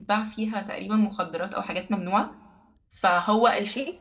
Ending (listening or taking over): listening